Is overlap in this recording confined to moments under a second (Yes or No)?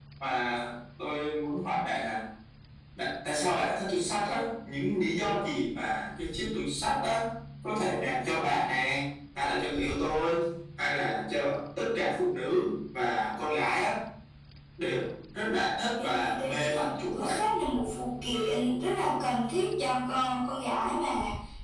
No